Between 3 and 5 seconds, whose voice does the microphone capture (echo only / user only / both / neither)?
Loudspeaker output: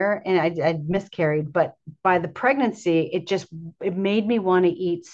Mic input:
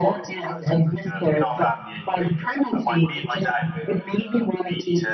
both